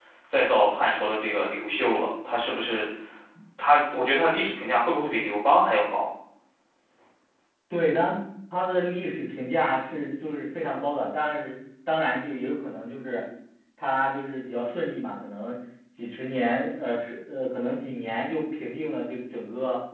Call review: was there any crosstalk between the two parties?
No

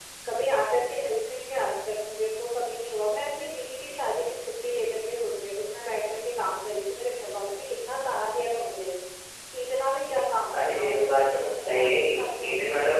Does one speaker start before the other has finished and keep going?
Yes, from 10.5 s

